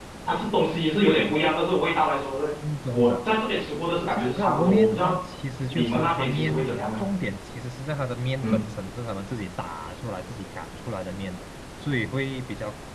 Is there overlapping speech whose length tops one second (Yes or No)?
Yes